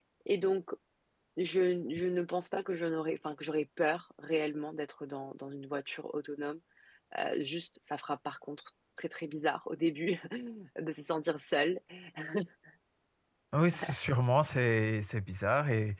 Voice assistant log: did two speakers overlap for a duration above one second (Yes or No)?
No